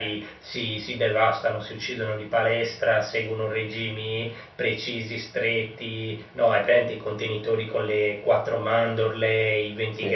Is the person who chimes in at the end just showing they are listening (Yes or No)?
Yes